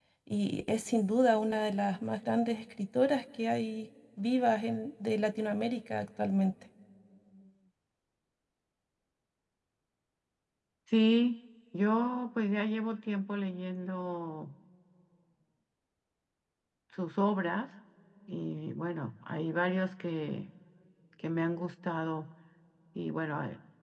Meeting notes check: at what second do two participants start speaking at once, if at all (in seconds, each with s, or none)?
none